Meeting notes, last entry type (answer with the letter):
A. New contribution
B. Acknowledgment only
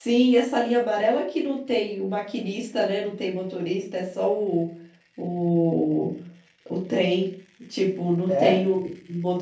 B